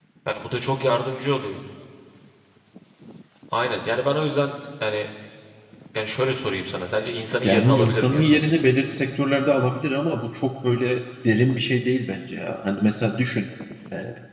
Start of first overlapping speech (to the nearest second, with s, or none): 7 s